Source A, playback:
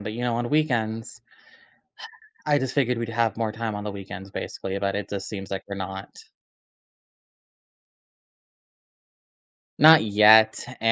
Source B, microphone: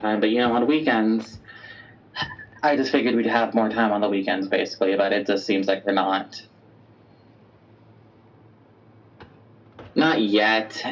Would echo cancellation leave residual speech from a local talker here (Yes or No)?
No